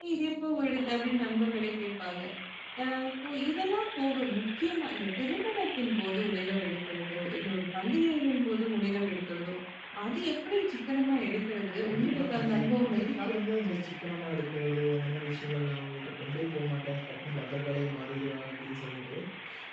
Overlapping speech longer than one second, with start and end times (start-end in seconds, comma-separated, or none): 11.9-13.2